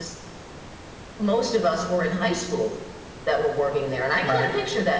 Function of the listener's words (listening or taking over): listening